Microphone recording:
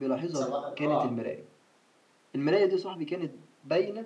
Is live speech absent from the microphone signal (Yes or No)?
No